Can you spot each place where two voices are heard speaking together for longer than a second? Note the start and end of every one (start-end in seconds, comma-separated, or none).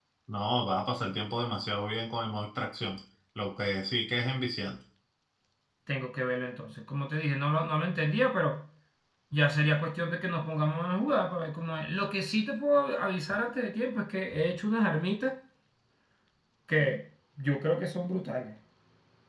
none